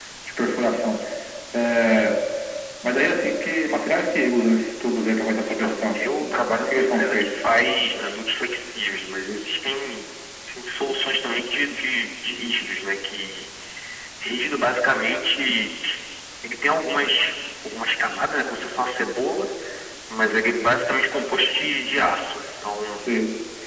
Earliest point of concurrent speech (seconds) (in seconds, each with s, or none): 5.5 s